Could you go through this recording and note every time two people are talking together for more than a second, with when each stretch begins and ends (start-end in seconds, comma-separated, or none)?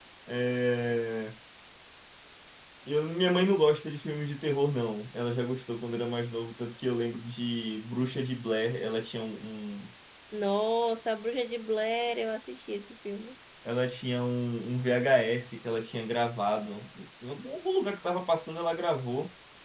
none